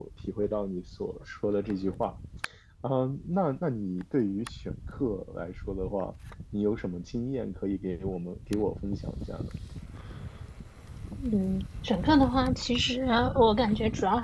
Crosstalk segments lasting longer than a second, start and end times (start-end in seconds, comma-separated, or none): none